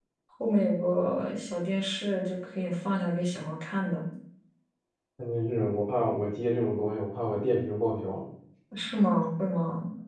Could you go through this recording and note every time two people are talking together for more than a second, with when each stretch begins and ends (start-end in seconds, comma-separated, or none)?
none